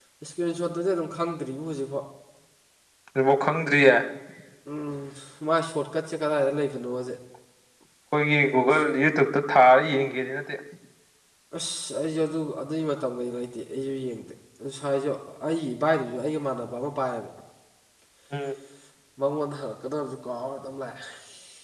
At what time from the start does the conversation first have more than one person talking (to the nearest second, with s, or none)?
none